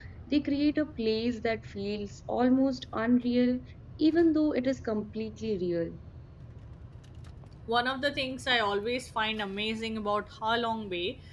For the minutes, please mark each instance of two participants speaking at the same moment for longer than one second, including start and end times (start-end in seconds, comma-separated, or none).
none